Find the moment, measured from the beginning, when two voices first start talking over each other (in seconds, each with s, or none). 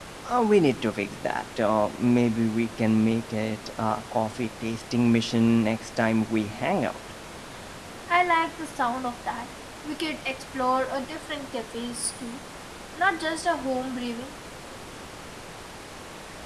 none